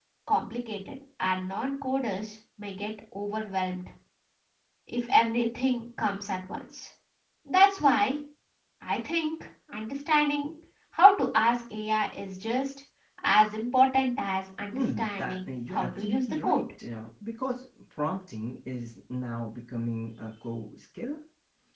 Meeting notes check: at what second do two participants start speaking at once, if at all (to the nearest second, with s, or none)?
15 s